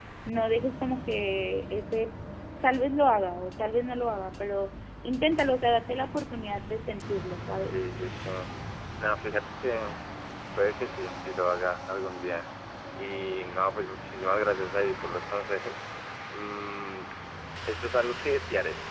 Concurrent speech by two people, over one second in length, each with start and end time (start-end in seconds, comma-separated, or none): none